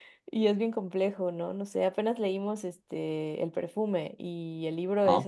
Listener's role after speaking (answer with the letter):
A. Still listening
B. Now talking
A